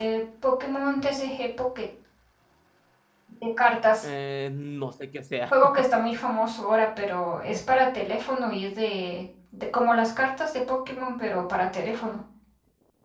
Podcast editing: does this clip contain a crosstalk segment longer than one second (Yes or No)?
No